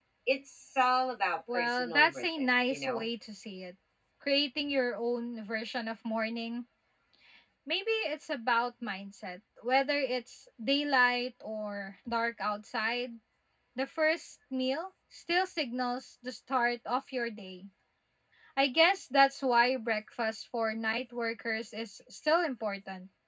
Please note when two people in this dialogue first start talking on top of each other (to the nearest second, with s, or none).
1 s